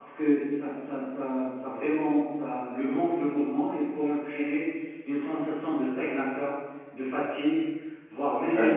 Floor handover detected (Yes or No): No